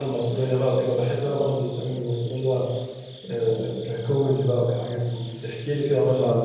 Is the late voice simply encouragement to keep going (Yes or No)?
No